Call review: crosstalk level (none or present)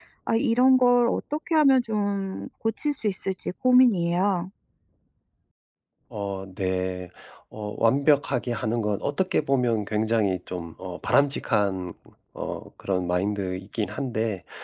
none